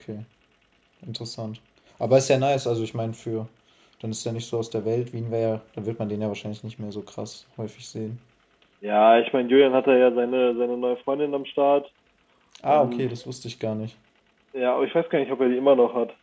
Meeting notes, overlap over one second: none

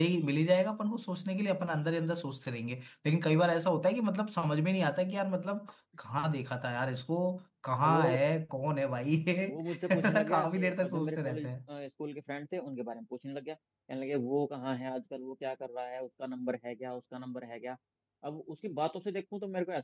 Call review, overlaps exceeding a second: present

